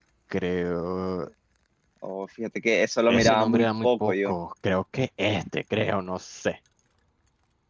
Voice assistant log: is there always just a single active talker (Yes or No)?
No